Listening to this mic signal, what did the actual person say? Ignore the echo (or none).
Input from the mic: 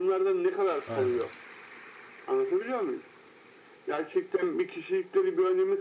Aynen.